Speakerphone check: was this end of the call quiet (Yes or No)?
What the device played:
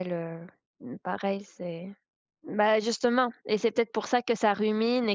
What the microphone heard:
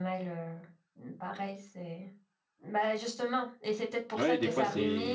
No